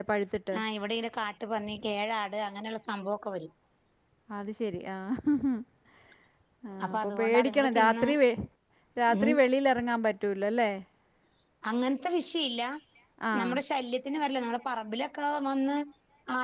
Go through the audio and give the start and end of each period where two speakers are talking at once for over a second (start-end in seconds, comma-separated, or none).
6.8-8.1